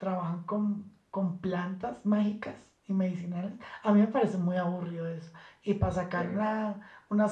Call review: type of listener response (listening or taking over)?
listening